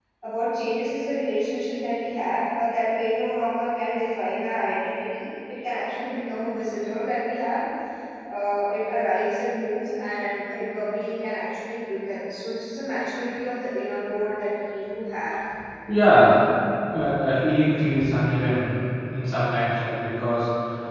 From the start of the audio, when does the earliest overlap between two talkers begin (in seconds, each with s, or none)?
none